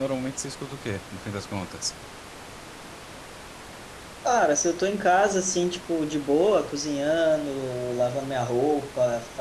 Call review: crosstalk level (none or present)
none